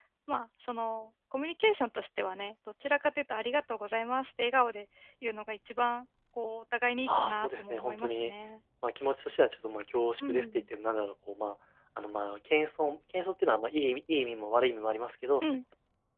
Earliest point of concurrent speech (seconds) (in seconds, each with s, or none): 7.1 s